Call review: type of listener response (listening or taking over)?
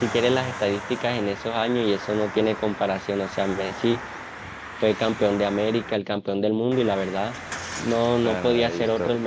taking over